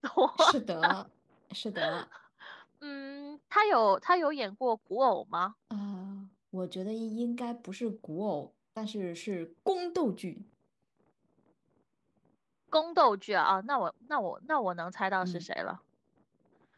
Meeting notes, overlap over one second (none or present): none